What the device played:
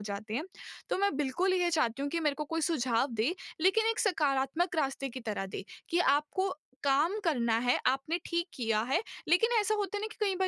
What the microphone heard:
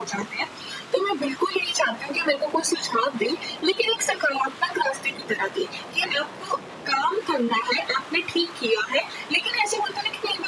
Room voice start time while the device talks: none

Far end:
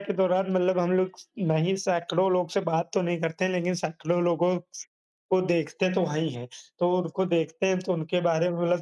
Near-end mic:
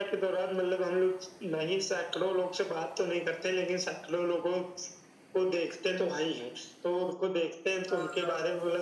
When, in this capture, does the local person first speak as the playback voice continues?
7.9 s

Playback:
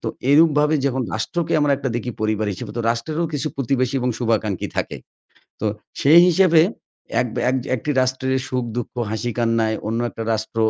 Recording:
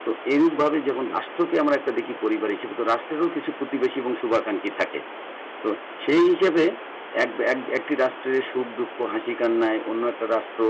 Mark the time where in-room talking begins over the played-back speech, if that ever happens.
none

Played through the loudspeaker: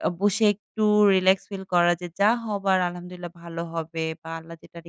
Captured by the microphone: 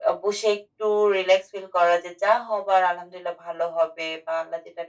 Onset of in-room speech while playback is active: none

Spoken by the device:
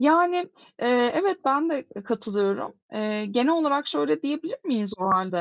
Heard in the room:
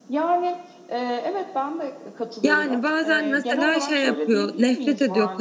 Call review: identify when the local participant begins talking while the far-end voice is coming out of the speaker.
2.4 s

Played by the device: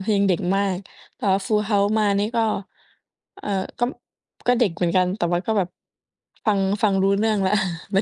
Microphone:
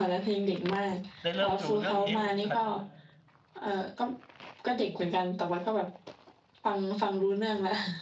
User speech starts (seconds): 1.2 s

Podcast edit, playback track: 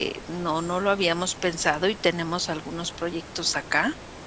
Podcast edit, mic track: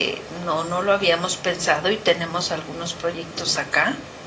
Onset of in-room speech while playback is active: none

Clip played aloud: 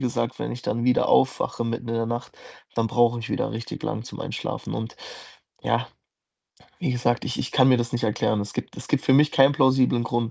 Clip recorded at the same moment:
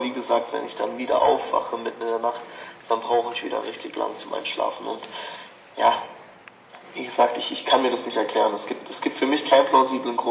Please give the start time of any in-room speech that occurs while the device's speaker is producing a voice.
none

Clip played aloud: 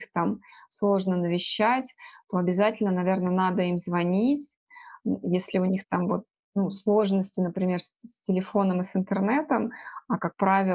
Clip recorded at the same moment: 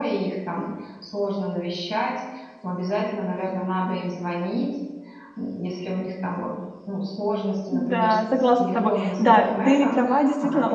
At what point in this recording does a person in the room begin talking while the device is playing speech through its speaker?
7.7 s

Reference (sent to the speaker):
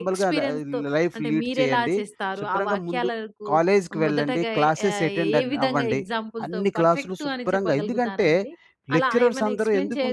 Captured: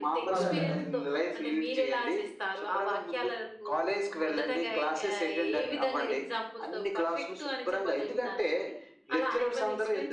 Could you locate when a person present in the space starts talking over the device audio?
0.3 s

